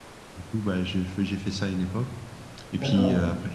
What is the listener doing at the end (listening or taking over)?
listening